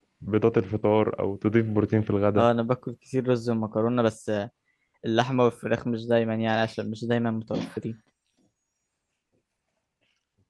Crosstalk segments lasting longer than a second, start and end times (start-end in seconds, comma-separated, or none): none